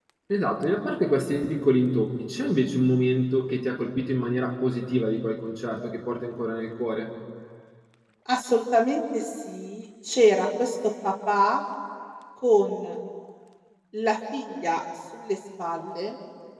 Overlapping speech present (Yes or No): No